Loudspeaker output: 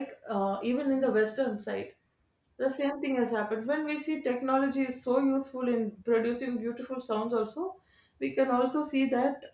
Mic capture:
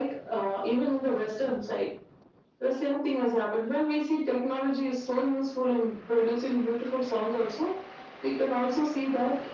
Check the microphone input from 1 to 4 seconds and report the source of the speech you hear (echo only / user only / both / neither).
echo only